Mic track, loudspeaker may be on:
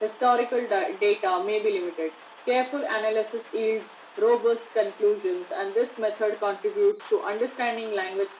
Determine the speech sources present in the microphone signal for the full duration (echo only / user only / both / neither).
echo only